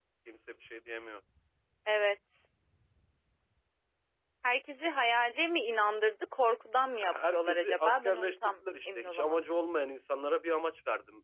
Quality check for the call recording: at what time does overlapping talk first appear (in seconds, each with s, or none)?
7.0 s